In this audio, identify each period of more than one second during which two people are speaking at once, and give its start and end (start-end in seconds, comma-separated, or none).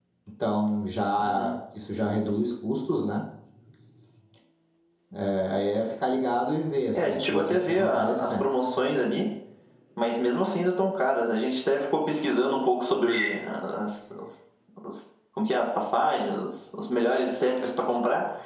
6.9-8.5